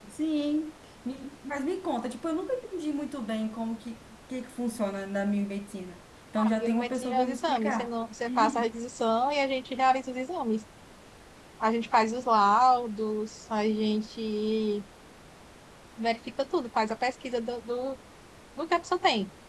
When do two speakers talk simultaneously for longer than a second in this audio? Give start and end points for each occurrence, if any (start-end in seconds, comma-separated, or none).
6.6-7.9